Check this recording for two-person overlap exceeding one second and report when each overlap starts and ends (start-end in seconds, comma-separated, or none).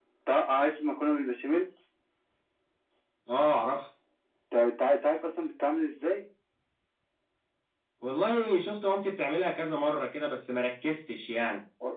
none